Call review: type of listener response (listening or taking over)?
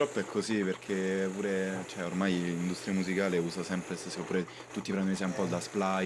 listening